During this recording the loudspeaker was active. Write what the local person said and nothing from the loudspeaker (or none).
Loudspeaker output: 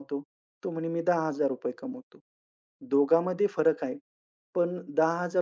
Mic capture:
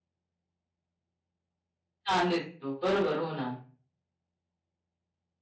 छान दिसतो. बरोबर. हो ना.